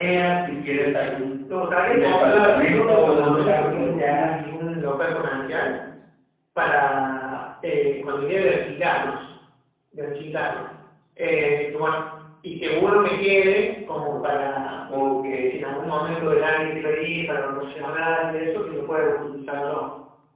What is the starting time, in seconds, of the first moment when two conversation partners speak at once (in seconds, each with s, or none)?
1.9 s